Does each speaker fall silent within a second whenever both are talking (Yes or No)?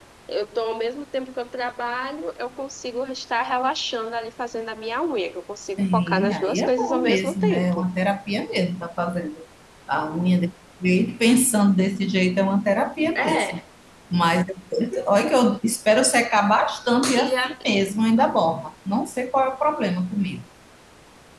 No